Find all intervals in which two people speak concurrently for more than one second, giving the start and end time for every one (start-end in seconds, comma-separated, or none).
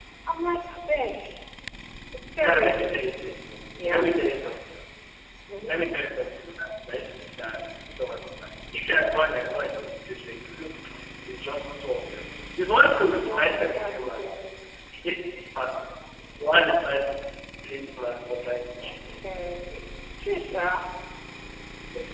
13.2-14.4